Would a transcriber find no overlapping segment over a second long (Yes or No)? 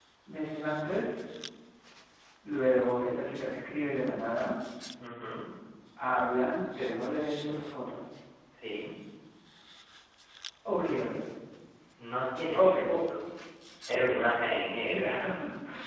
Yes